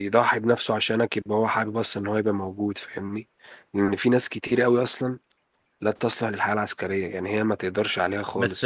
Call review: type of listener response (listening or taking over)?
taking over